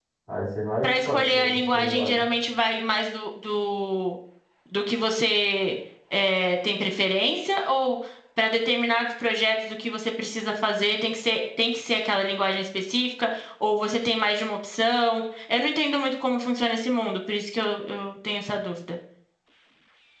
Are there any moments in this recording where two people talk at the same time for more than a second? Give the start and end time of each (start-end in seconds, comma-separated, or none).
0.8-2.3